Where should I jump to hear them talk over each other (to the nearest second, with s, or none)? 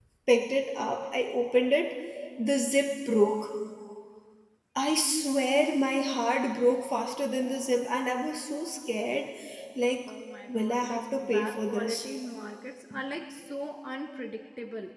11 s